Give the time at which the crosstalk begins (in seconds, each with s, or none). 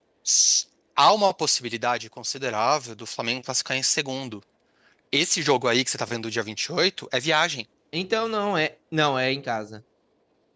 none